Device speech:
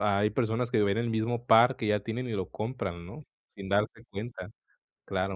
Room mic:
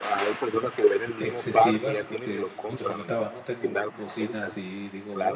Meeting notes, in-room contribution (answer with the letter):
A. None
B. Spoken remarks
B